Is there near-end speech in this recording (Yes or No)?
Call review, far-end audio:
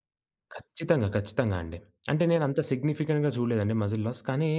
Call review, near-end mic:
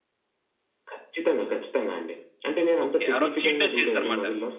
Yes